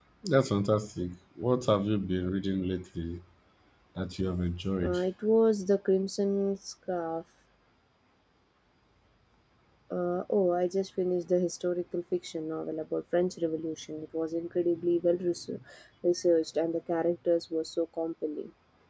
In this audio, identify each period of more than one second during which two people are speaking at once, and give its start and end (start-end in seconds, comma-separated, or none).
none